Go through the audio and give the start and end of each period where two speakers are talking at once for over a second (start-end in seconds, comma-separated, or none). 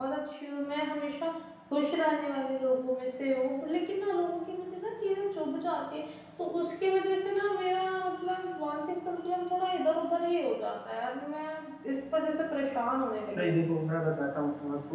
none